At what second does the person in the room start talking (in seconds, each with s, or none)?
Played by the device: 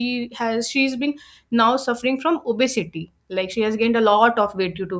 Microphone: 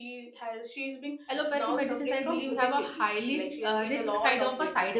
1.4 s